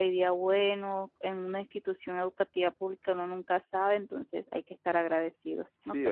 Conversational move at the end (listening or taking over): taking over